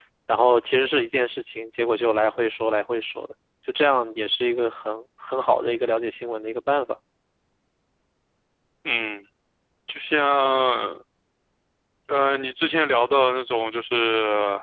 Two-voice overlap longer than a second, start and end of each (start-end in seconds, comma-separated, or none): none